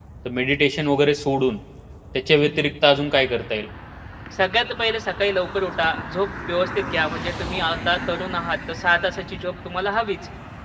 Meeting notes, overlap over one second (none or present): none